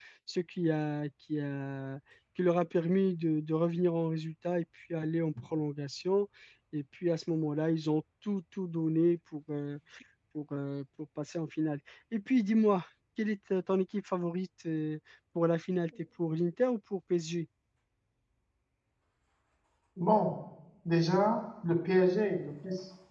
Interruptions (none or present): none